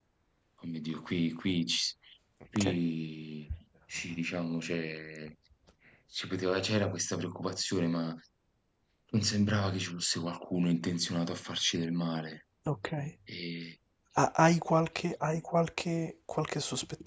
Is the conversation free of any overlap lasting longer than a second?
Yes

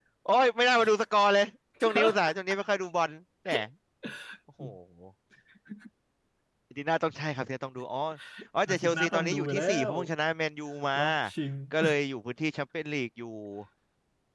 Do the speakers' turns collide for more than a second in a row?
Yes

